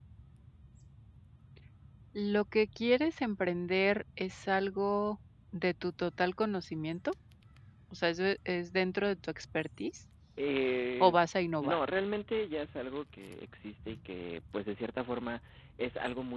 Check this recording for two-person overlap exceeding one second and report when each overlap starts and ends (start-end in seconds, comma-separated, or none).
none